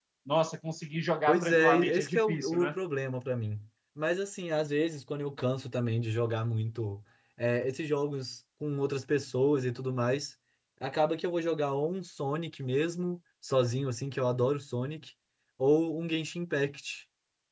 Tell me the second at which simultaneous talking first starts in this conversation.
1 s

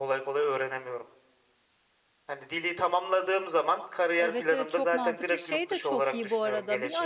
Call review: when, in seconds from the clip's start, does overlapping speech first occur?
4 s

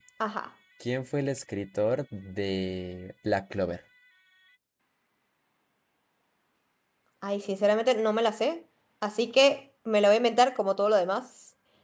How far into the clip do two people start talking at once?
none

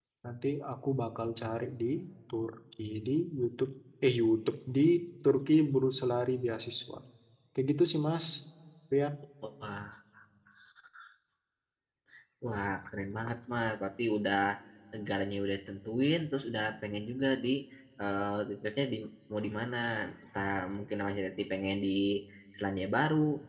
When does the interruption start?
none

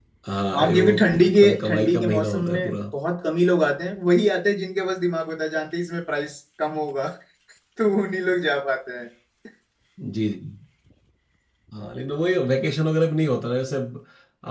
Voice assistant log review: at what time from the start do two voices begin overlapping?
1 s

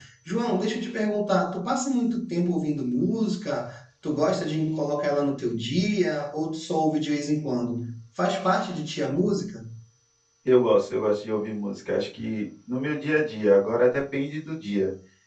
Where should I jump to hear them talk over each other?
none

